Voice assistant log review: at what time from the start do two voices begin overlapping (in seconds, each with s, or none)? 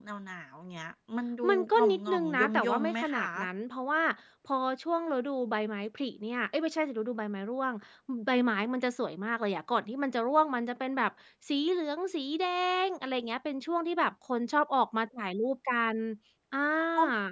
1.4 s